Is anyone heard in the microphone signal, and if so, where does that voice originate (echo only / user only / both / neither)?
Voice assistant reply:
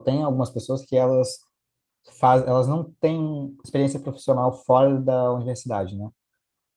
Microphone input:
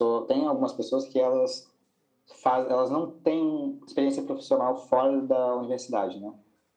echo only